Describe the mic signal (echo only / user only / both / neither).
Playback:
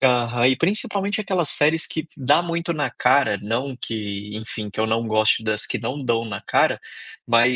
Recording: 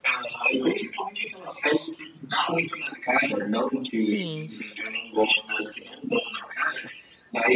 both